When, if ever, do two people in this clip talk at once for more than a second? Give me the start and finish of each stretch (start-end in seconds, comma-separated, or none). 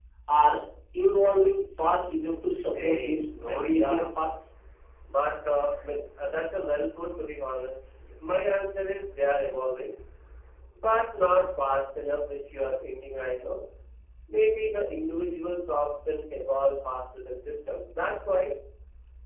2.7-4.0